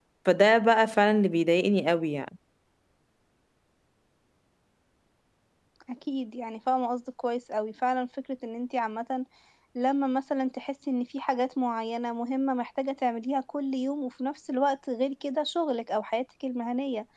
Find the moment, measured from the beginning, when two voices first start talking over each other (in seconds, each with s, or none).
none